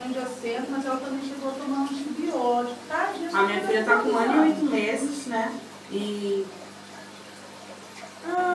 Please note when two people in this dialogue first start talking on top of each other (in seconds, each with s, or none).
3.3 s